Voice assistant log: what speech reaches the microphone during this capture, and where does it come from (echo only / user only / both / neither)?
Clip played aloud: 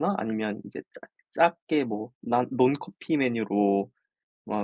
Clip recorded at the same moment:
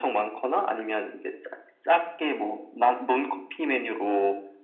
echo only